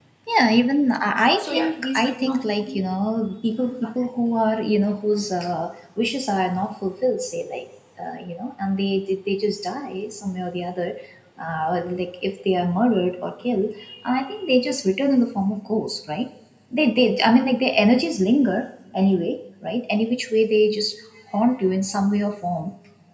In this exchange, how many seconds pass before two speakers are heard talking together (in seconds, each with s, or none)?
1.4 s